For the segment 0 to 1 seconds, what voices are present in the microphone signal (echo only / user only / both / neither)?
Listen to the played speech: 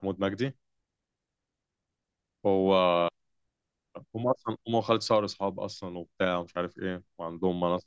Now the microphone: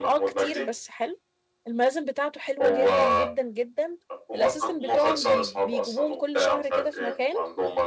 both